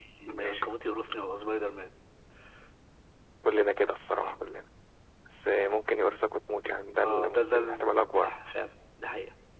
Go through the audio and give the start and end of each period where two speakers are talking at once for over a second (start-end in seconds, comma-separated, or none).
7.0-8.3